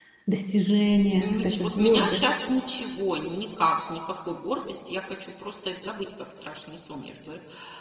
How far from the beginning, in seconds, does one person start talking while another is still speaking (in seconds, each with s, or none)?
0.7 s